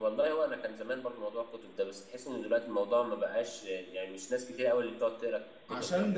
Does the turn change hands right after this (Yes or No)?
Yes